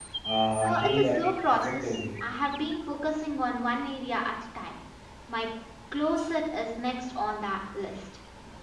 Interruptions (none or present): present